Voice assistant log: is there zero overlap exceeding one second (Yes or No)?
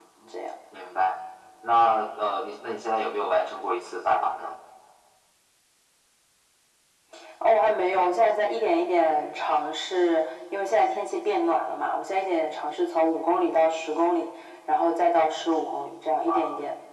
Yes